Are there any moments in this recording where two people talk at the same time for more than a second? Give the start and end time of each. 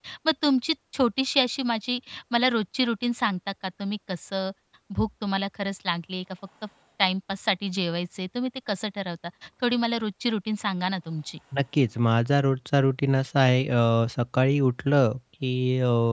none

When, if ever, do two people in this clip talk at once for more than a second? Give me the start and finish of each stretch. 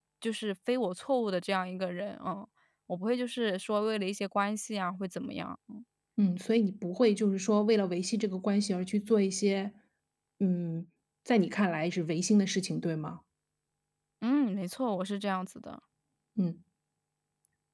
none

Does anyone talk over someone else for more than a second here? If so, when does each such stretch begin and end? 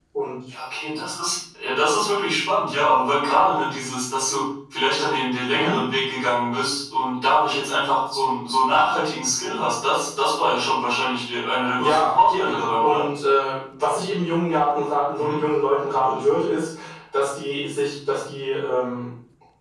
11.8-13.0

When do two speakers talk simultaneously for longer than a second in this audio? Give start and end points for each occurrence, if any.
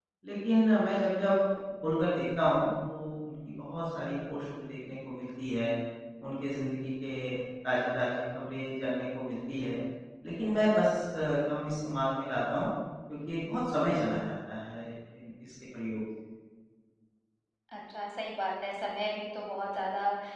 none

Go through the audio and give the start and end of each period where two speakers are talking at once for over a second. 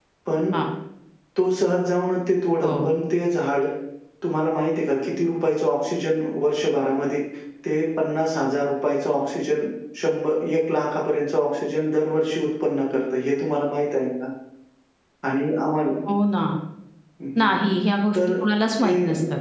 none

